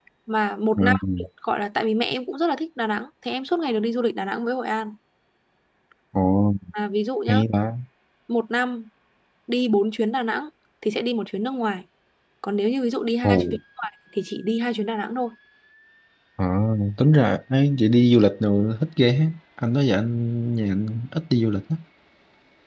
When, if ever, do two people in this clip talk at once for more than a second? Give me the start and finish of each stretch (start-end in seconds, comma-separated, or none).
none